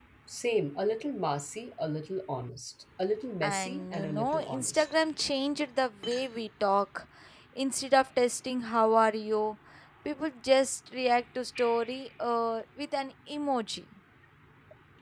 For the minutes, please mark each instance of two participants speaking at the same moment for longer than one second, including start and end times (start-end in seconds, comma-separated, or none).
3.4-4.9